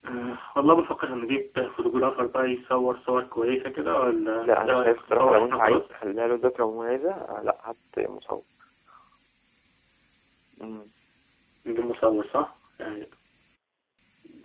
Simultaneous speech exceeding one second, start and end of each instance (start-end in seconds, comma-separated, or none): 4.4-5.8